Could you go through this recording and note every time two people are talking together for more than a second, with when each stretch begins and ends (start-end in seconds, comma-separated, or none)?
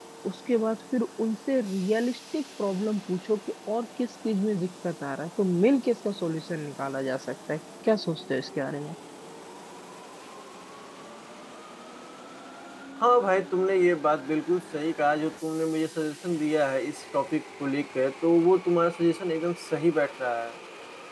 none